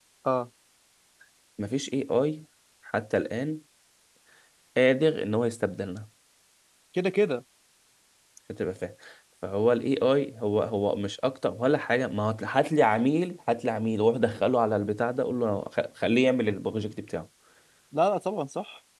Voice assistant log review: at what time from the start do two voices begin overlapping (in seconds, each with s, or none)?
none